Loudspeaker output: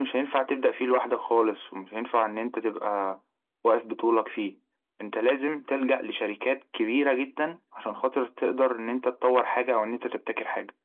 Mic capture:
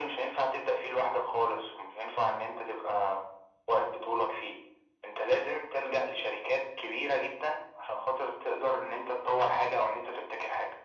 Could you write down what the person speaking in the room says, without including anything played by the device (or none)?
none